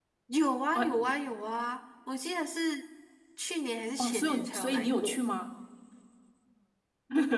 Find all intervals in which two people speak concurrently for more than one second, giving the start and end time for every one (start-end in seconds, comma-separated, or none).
4.0-5.2